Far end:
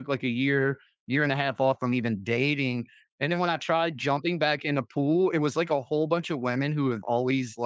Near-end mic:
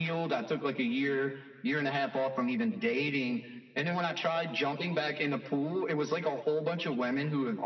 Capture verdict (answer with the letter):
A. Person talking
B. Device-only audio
B